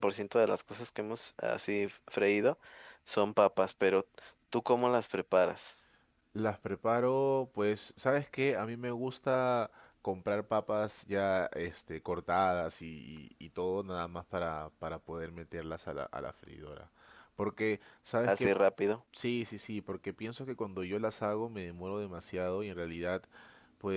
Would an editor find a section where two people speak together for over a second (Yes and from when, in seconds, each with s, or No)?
No